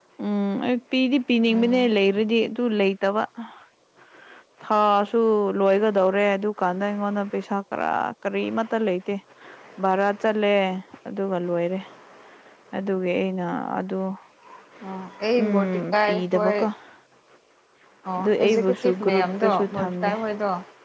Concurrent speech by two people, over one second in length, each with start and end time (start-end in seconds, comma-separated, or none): 15.4-16.7, 18.2-20.1